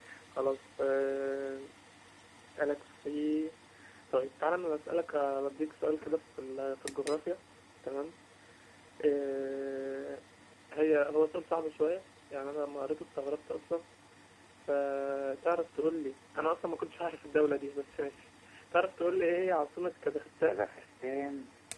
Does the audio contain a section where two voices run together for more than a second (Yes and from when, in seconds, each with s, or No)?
No